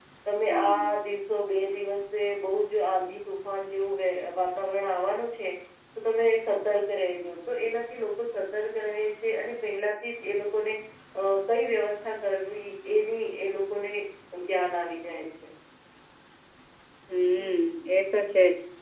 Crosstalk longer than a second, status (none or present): none